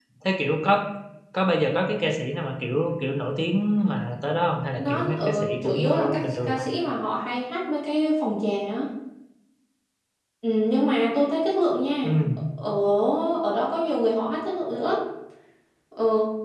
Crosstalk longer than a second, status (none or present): present